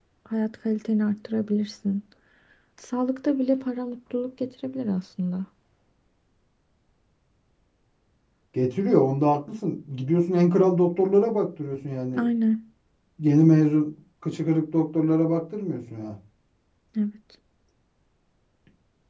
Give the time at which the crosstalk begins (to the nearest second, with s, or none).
none